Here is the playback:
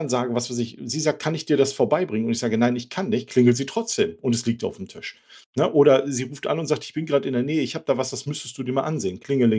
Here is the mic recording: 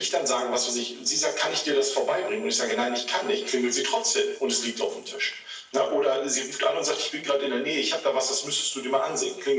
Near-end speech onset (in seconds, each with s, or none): none